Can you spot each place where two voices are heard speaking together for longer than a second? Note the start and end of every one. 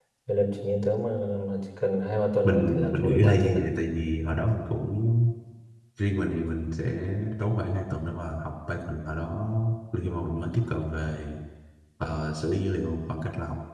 2.4-3.6

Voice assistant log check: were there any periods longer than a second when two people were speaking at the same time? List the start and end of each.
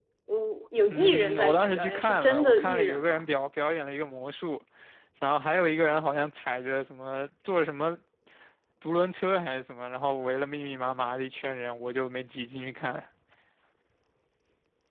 0.9-3.3

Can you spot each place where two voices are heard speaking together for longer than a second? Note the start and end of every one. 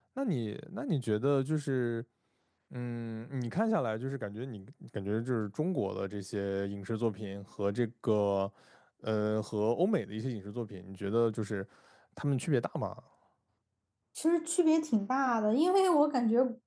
none

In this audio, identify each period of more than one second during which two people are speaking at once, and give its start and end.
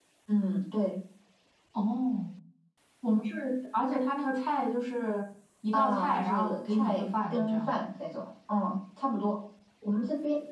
5.7-7.7

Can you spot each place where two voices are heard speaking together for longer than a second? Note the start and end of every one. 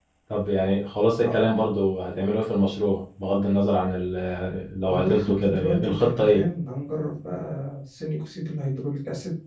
4.9-6.4

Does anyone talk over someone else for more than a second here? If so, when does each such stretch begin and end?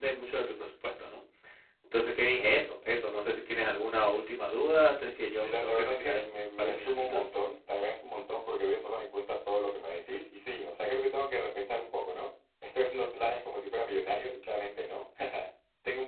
5.3-7.2

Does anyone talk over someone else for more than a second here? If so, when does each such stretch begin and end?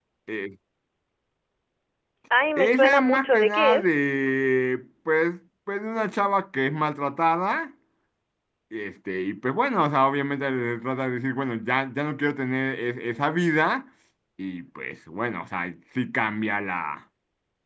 2.6-3.9

